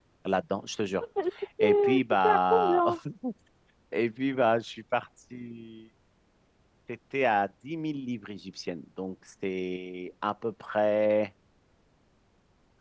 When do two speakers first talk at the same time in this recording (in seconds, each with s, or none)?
1.6 s